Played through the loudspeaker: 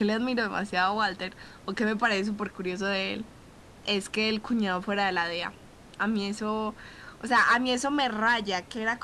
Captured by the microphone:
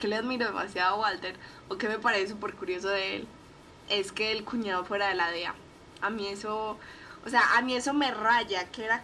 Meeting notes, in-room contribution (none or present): none